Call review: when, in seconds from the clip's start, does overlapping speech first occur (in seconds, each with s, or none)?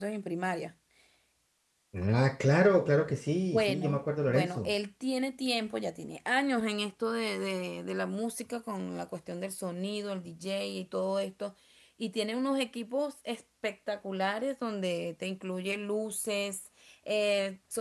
3.5 s